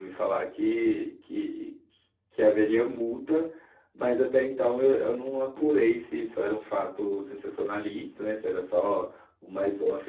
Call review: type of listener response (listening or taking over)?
listening